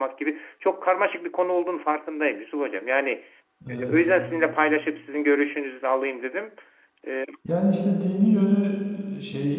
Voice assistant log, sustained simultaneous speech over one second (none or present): none